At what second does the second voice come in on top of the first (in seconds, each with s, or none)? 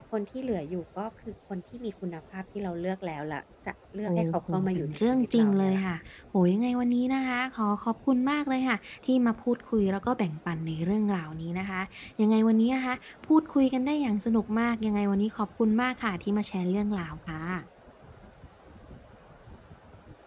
4.1 s